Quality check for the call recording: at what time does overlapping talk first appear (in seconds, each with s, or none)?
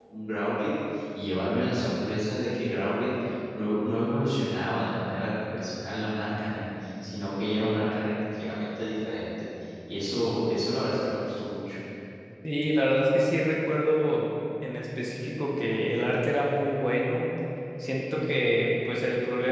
none